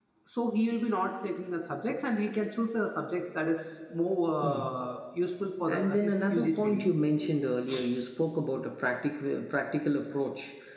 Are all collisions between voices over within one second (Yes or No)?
No